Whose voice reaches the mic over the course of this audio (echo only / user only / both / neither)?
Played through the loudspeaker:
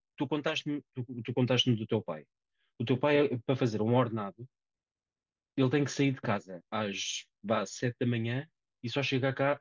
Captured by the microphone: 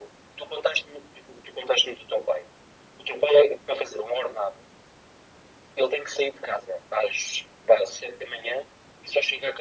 echo only